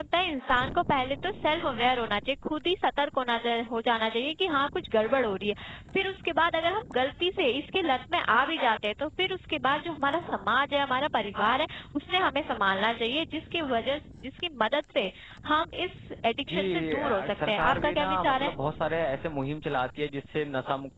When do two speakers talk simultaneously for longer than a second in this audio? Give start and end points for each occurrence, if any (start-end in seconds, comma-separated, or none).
16.5-18.5